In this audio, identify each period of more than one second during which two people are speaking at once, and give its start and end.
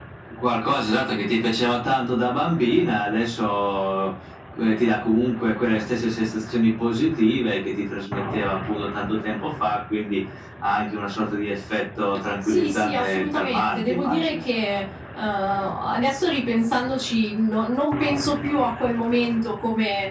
12.4-14.3

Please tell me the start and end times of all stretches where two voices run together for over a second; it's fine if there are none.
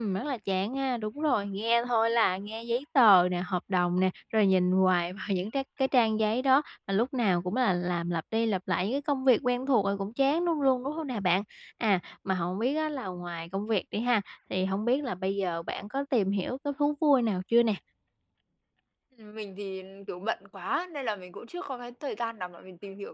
none

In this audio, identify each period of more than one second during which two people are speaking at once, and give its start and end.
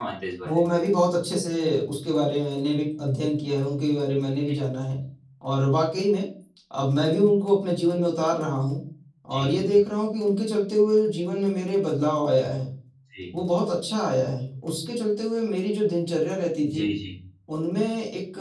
none

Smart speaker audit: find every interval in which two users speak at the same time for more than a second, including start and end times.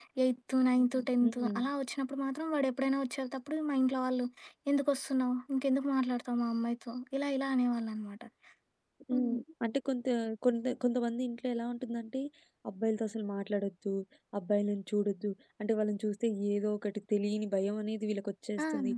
none

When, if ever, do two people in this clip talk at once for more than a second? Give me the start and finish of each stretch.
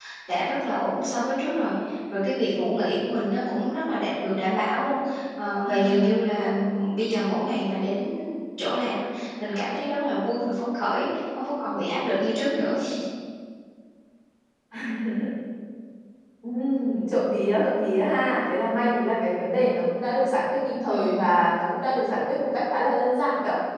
none

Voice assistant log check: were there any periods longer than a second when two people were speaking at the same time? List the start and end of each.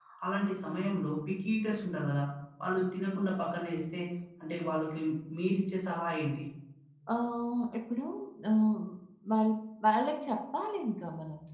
none

